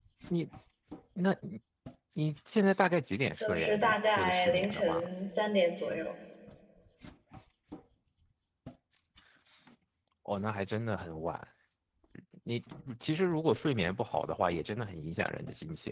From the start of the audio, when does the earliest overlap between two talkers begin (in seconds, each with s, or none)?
3.4 s